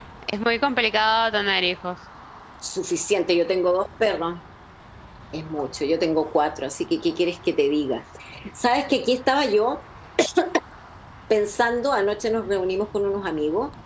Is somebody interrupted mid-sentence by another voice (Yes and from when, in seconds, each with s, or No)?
No